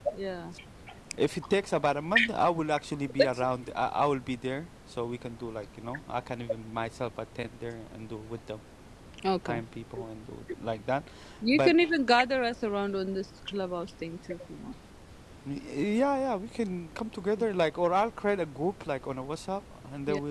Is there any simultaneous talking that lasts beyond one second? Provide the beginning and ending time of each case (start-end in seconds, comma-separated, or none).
none